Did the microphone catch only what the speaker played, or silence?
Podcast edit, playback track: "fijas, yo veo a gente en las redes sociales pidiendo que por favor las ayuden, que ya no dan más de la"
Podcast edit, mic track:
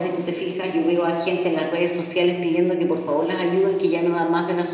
Yes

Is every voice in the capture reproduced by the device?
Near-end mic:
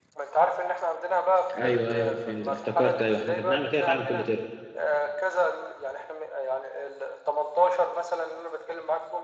No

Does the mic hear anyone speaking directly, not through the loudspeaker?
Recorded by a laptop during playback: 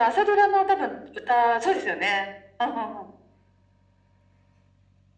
No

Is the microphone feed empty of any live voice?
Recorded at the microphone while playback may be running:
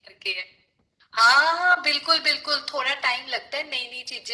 Yes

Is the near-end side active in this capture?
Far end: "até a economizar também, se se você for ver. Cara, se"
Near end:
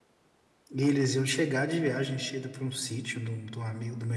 Yes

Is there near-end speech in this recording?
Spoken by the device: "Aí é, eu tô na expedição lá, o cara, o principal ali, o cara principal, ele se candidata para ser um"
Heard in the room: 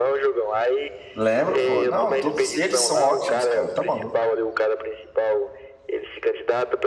Yes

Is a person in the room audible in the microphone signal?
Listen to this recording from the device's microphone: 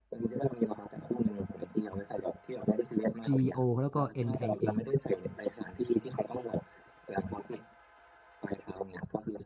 Yes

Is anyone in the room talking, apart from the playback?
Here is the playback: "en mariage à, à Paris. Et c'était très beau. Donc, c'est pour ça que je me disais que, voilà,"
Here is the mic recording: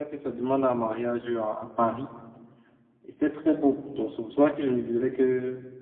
No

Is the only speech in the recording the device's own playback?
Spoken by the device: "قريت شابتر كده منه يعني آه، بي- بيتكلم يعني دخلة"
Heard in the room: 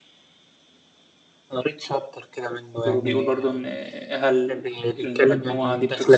No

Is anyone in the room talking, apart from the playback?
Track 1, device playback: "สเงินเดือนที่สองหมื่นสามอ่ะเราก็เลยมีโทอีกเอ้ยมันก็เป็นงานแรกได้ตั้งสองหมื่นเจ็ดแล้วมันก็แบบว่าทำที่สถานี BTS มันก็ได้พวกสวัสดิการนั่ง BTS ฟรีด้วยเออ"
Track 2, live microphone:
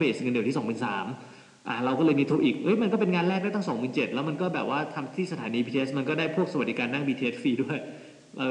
No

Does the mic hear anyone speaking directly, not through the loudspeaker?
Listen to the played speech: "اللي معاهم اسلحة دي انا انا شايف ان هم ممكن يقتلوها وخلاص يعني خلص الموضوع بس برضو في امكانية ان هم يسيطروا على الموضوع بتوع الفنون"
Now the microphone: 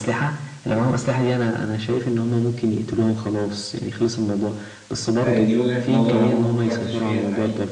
Yes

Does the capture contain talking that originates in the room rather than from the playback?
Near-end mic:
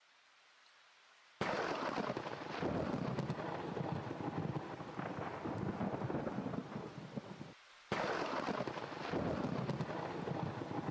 No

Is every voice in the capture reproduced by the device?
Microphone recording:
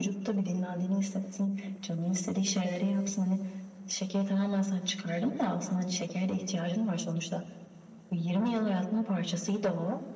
Yes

